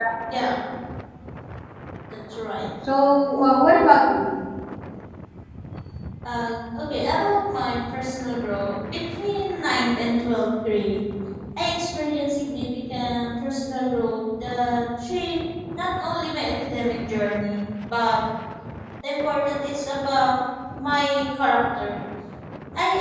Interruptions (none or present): none